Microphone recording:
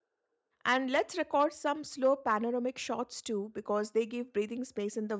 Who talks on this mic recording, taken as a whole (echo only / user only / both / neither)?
user only